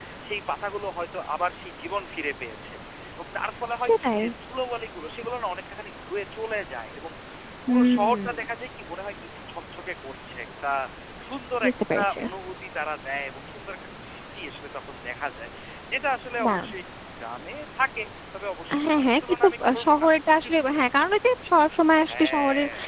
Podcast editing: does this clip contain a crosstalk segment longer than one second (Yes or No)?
Yes